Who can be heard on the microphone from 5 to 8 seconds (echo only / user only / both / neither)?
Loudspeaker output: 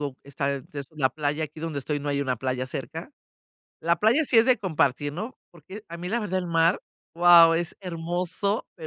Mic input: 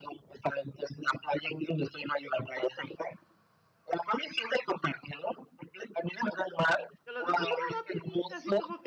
both